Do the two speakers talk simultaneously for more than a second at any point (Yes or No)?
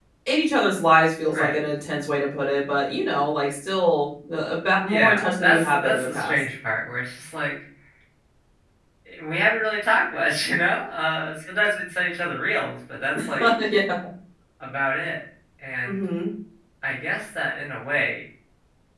Yes